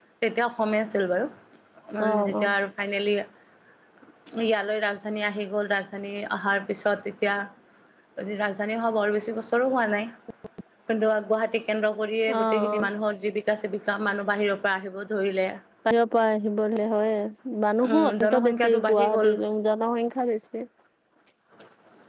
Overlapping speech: Yes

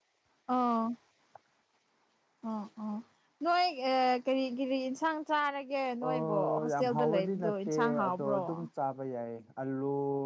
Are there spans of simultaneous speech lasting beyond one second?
Yes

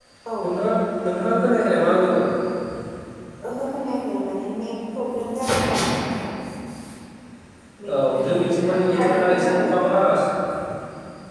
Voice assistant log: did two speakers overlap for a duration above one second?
Yes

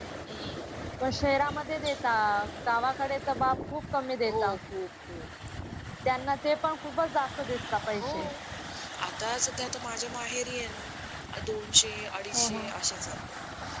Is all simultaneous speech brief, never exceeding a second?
Yes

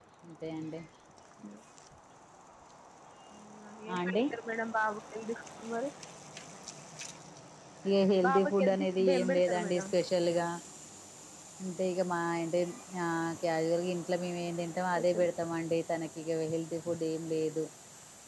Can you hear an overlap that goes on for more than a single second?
Yes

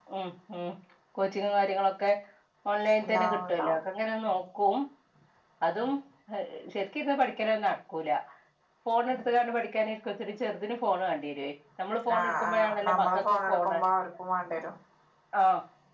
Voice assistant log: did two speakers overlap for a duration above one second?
Yes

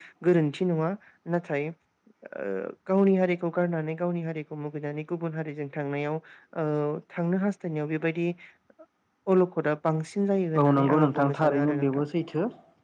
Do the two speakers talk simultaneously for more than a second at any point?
Yes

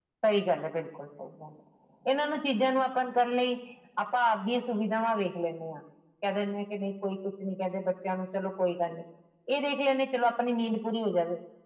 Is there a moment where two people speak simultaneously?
No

